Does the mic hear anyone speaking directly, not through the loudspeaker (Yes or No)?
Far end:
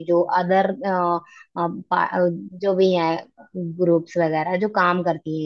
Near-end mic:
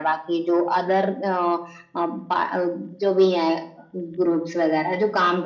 No